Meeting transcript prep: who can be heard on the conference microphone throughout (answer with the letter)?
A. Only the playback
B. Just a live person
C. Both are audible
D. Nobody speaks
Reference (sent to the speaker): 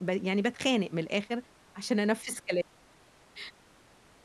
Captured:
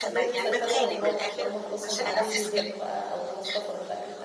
C